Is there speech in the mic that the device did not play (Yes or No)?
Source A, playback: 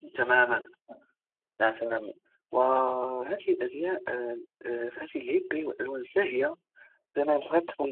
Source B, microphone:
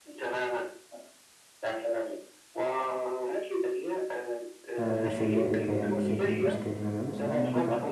Yes